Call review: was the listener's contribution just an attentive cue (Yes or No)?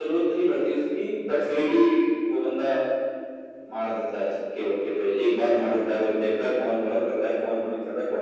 No